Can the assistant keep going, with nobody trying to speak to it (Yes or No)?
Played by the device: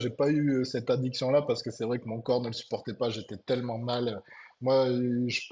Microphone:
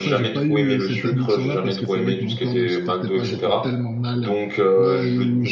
No